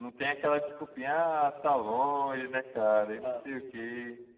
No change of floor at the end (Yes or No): Yes